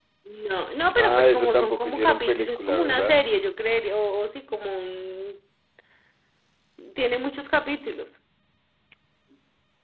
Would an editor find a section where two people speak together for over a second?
Yes, from 1.0 s

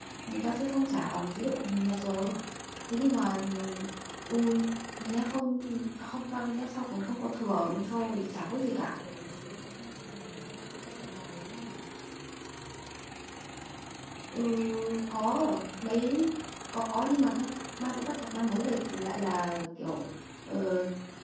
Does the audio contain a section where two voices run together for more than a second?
No

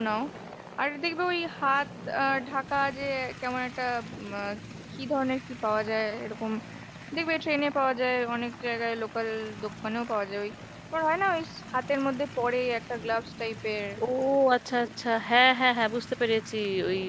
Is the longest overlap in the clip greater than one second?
No

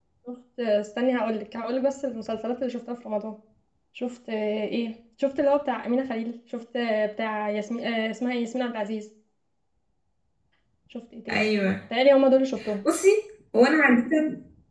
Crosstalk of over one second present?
No

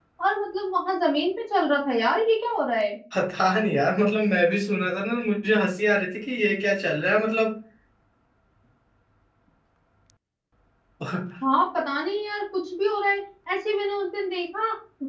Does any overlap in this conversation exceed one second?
No

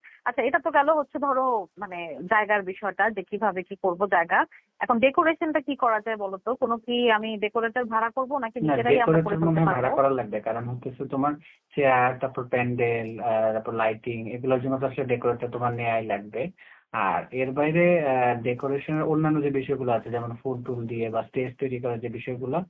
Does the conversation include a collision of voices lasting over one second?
Yes, from 8.6 s

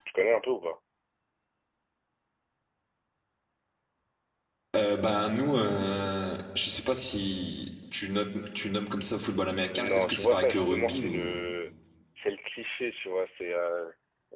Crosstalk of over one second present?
Yes, from 9.7 s

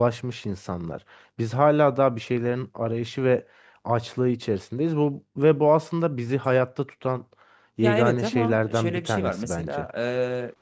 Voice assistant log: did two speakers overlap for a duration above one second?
Yes, from 7.8 s

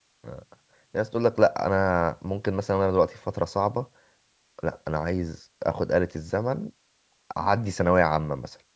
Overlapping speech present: No

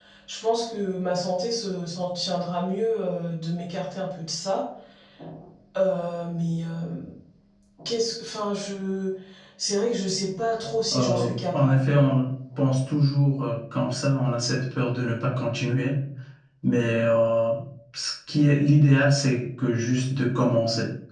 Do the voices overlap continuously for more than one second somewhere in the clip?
Yes, from 10.9 s

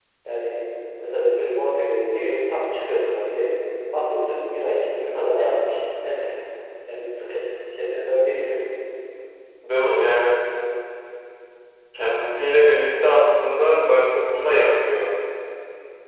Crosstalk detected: No

